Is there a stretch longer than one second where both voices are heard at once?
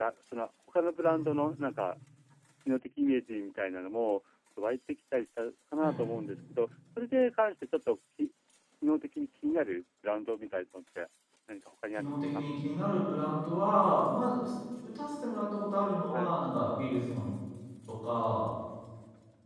No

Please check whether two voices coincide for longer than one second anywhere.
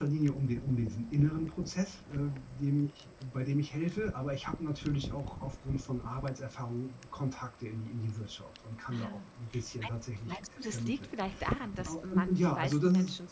Yes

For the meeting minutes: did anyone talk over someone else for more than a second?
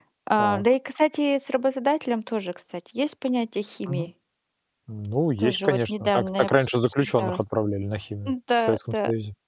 Yes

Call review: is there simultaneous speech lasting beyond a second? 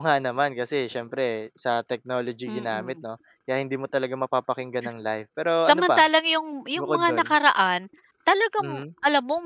No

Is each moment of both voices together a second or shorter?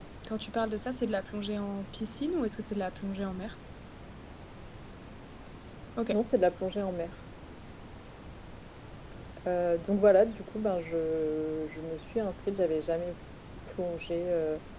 Yes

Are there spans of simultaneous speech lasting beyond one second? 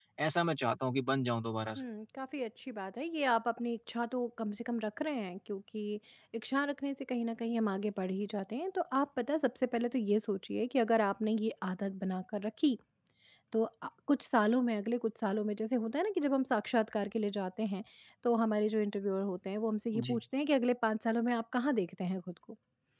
No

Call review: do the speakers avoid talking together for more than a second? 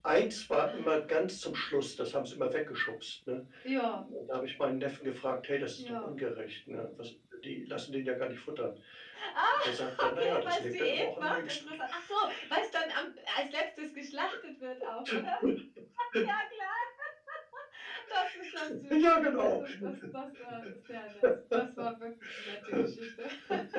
No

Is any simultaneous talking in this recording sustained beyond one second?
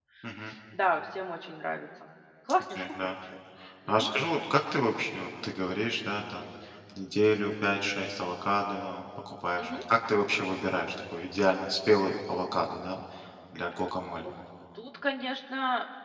No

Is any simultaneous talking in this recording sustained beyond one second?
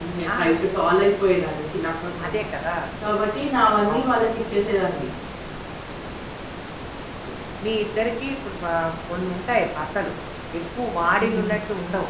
No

